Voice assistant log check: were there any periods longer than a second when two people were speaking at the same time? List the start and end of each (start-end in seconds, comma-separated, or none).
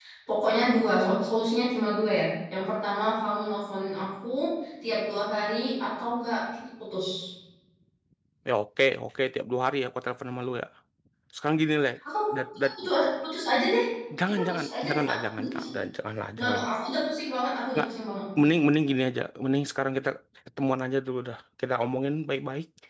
14.3-15.7